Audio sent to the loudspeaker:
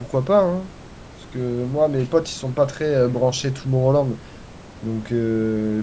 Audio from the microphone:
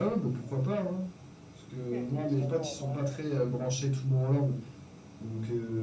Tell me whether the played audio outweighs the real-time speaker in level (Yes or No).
Yes